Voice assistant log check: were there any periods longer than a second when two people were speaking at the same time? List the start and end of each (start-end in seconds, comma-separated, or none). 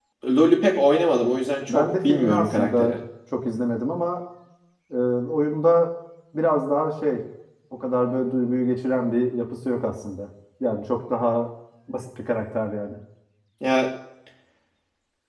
1.7-3.0